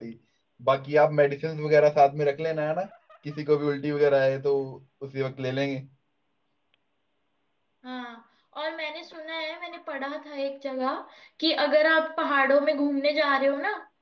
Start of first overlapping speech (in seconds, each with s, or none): none